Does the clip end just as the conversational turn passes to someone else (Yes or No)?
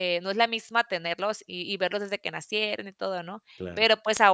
No